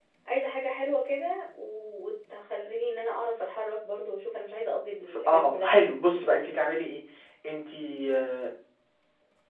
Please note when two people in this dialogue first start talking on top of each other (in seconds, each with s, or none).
5.0 s